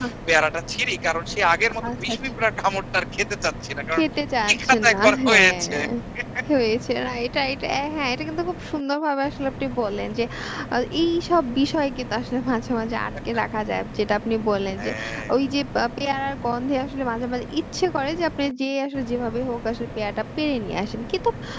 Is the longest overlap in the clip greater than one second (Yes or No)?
Yes